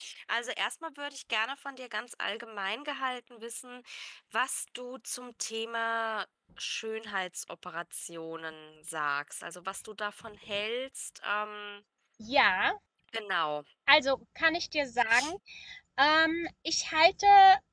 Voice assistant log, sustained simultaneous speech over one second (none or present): none